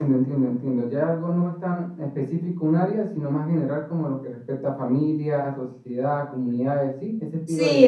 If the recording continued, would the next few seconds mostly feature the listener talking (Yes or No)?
Yes